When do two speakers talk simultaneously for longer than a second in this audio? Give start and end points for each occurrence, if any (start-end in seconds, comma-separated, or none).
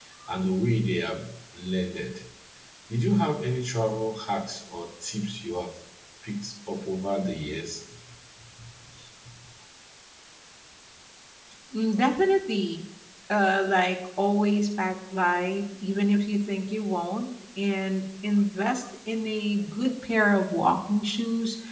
none